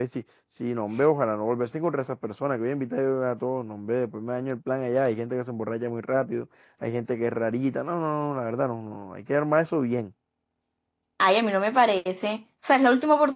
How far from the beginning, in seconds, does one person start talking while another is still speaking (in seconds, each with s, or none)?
none